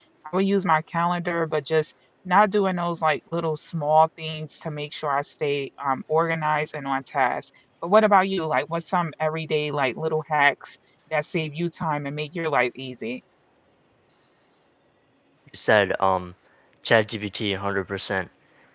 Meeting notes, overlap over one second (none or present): none